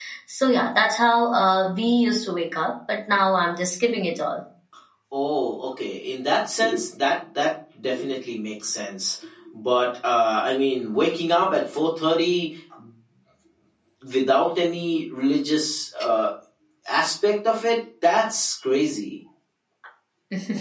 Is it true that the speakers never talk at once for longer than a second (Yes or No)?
Yes